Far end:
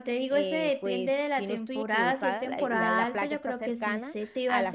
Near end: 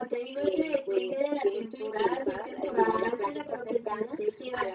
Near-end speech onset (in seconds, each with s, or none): none